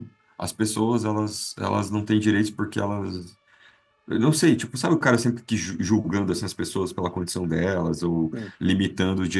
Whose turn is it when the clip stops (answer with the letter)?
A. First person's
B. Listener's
A